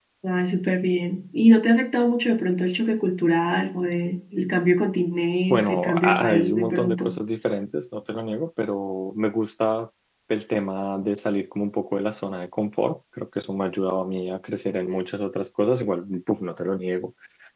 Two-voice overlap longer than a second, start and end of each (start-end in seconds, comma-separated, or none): 5.5-7.1